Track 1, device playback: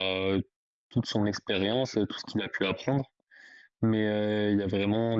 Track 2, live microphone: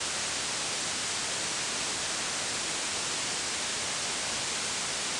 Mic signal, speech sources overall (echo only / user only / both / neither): neither